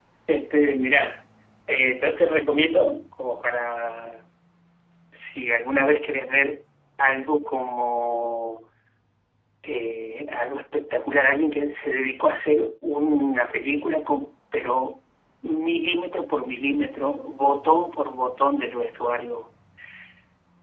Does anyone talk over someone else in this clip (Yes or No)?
No